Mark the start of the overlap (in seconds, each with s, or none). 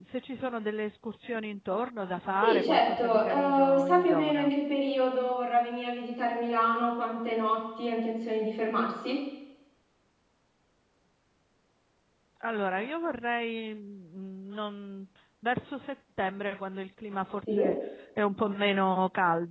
2.4 s